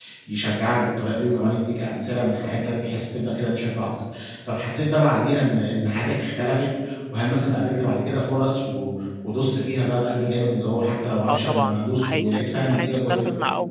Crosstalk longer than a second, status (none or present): present